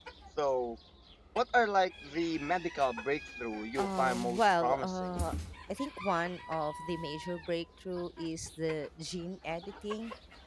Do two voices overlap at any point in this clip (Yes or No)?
Yes